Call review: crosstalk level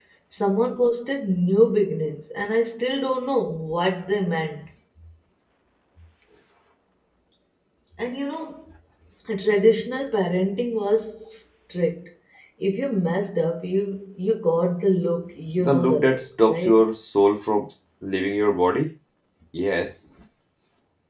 present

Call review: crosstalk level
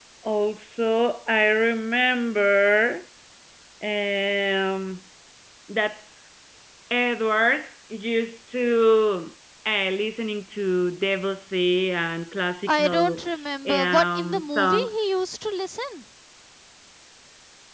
present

